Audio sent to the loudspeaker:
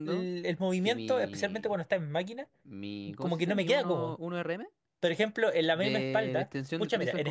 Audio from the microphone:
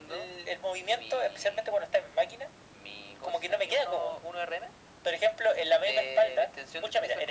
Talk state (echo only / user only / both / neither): echo only